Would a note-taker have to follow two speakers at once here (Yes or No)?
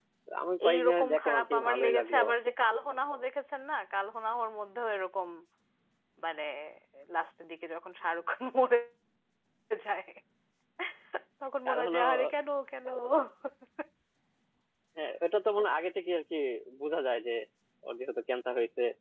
Yes